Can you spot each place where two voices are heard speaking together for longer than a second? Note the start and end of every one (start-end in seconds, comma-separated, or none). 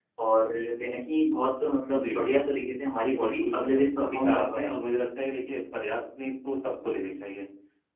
3.1-4.7